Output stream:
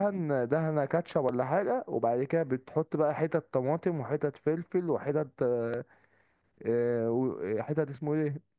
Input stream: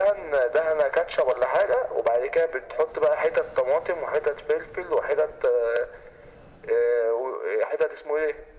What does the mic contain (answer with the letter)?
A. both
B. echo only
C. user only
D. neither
B